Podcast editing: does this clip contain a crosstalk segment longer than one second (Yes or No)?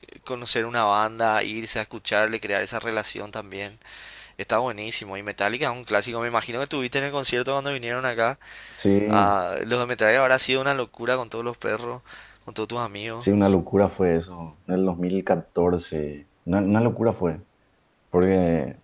No